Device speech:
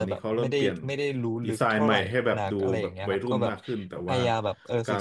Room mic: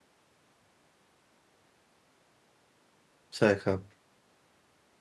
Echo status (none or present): none